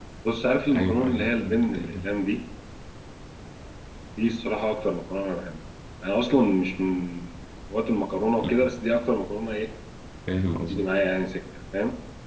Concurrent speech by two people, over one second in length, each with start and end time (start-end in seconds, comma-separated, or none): 0.8-2.0